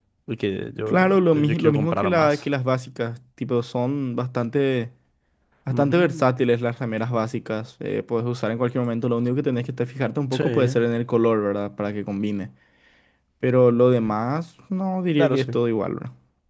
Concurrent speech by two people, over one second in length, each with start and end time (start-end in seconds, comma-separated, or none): 0.9-2.4